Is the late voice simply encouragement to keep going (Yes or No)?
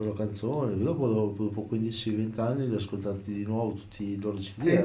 No